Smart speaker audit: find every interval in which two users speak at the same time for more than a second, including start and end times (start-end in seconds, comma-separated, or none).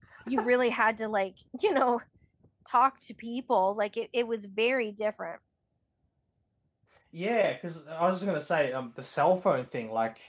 none